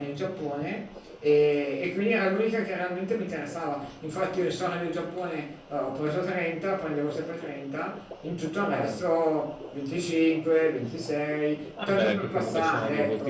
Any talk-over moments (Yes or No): Yes